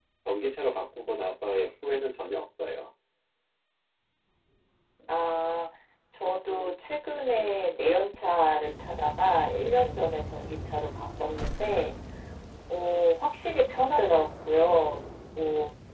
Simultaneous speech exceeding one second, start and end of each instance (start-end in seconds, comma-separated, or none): none